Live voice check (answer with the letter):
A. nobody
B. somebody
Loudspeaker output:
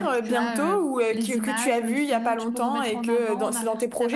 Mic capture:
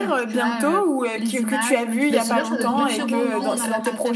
B